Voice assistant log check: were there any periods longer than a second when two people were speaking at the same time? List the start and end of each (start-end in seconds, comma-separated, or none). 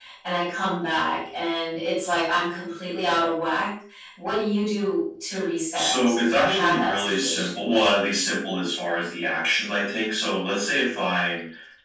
5.7-7.7